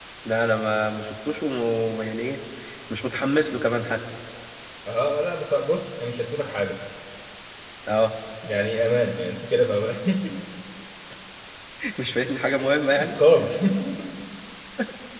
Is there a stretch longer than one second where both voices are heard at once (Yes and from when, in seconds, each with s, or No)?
No